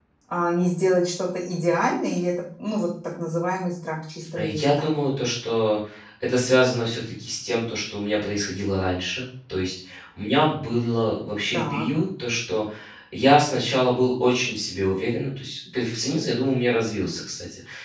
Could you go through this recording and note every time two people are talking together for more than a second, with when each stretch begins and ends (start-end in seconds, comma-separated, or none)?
none